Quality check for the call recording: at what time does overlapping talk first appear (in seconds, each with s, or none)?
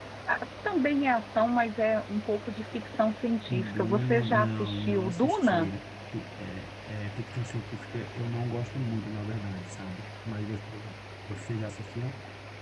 3.5 s